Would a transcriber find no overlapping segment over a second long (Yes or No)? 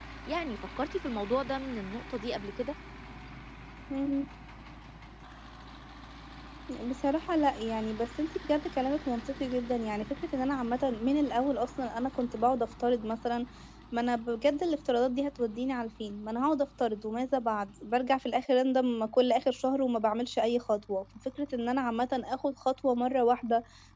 Yes